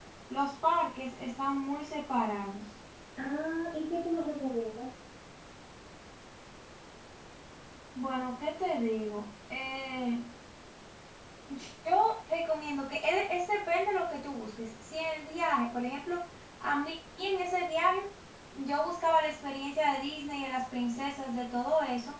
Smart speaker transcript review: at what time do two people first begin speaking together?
none

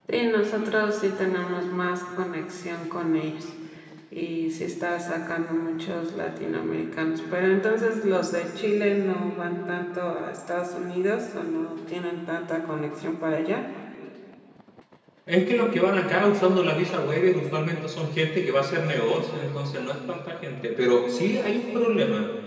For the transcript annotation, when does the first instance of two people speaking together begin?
none

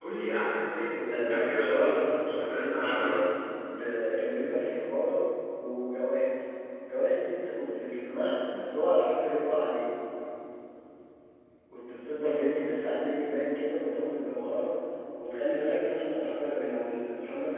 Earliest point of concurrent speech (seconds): 1.1 s

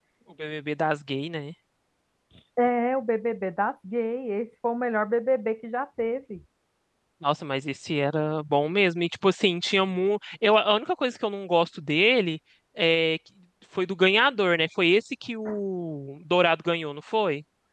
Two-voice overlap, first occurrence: none

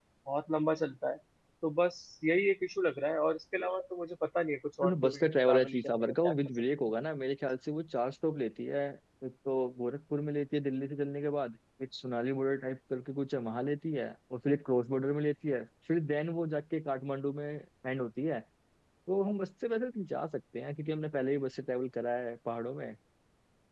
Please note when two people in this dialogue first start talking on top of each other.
4.8 s

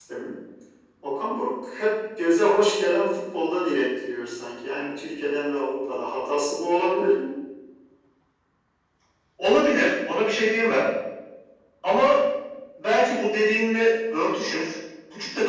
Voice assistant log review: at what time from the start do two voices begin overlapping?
none

